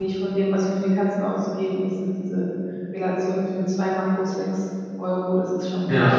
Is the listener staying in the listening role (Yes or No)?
No